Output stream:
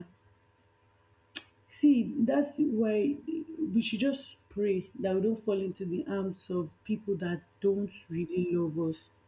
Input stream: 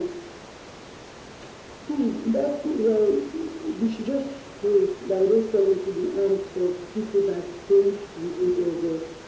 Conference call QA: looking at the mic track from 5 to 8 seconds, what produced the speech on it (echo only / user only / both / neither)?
echo only